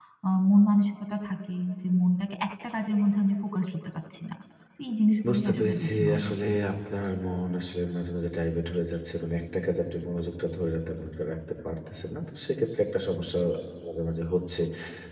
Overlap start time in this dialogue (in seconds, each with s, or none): 5.2 s